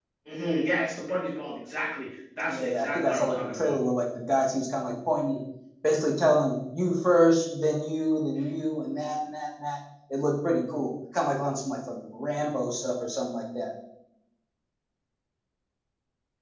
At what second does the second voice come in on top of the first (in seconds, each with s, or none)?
2.5 s